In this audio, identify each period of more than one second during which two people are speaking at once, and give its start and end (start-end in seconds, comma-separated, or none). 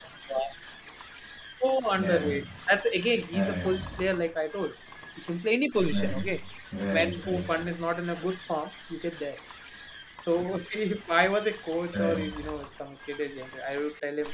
none